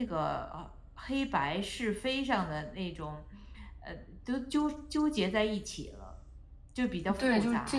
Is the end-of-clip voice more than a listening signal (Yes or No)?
Yes